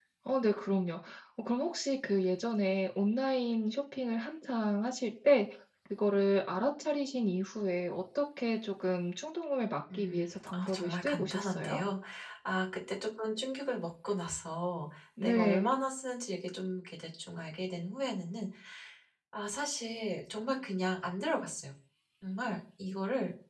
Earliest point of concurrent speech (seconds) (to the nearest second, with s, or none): 10 s